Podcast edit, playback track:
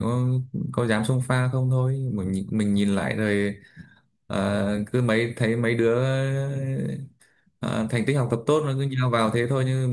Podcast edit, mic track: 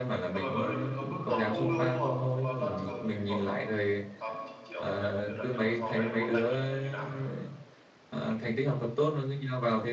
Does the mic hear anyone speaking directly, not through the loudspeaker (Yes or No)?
Yes